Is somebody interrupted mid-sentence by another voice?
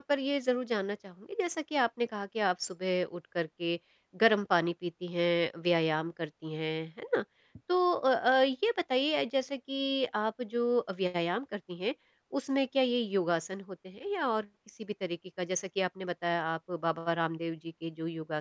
No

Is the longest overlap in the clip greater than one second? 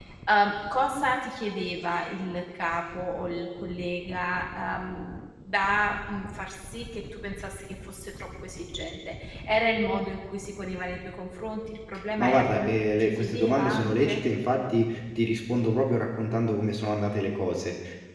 Yes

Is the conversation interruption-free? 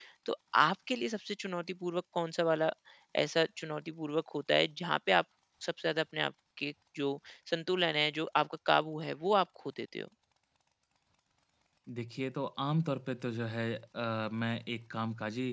Yes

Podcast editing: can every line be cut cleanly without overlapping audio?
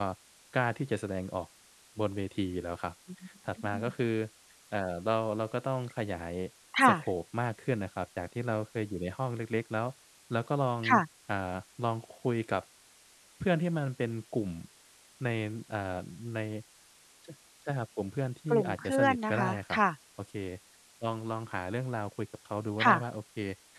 No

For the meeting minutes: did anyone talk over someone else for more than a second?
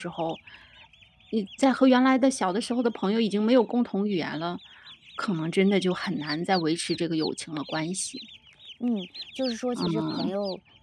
No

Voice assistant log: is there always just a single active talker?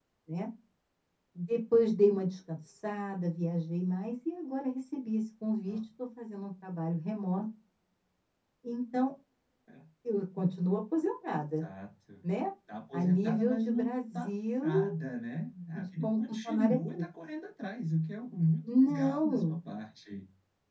No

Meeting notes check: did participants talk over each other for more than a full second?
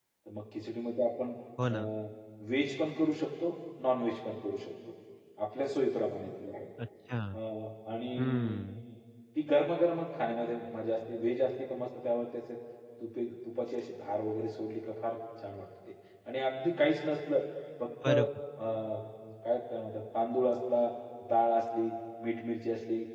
No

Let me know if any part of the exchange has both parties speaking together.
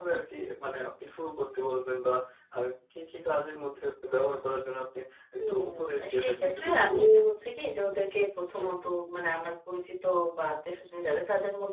Yes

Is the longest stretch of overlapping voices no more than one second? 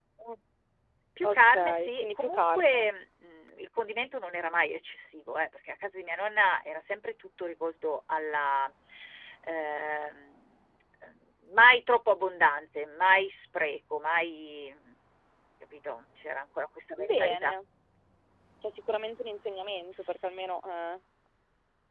No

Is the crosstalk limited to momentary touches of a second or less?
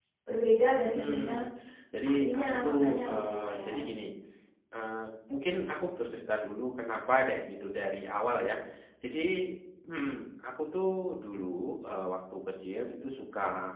No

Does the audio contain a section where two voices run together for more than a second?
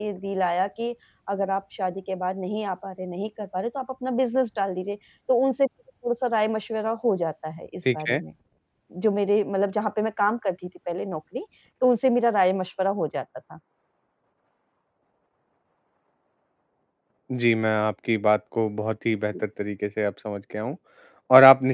No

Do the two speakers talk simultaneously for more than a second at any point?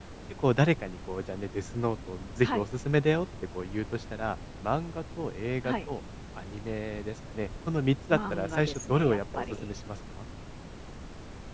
Yes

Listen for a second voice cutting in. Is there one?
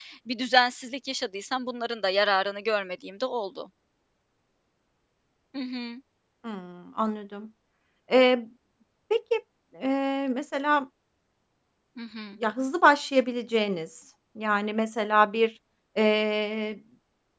No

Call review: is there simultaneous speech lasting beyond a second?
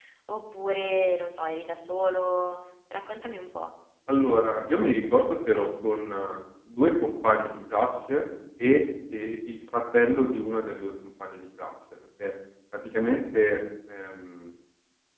No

